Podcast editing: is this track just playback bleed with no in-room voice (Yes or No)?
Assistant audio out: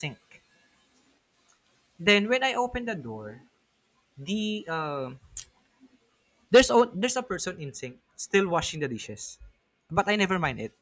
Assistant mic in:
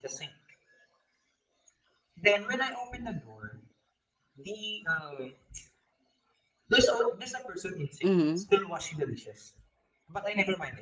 No